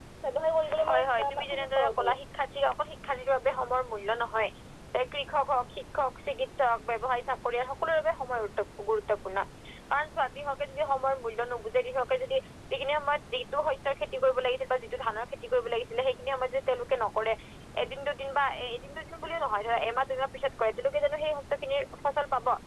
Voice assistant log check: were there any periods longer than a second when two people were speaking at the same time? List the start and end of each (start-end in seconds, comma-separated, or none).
0.9-2.1